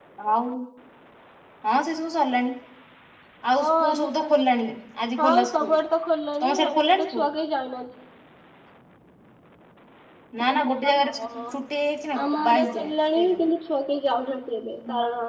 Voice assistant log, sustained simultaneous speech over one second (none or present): present